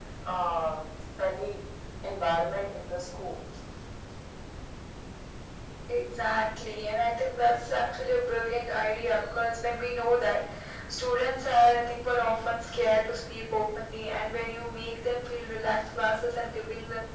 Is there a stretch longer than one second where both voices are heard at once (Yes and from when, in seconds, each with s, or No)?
No